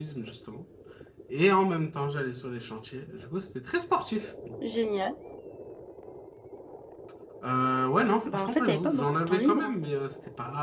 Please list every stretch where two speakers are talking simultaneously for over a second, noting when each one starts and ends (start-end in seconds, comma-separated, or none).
8.2-9.8